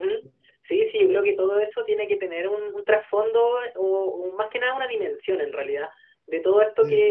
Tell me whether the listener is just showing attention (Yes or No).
Yes